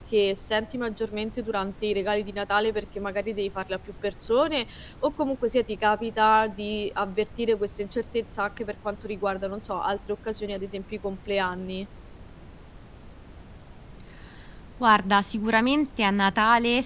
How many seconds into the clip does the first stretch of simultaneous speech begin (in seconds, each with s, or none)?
none